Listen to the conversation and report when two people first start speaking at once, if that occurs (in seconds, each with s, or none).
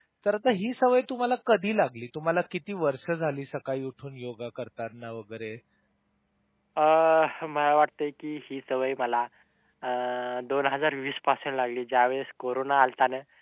none